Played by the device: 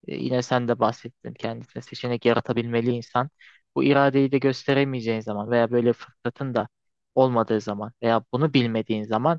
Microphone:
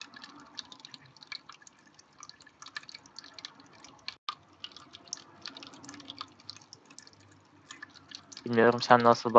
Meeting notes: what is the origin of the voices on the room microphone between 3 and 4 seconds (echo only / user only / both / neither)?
neither